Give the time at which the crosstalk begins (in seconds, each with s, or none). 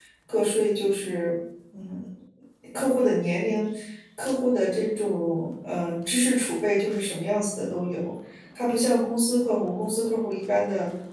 none